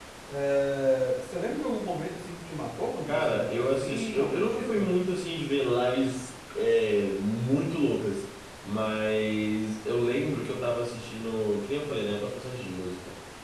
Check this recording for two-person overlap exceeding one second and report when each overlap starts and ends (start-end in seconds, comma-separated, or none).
3.1-4.9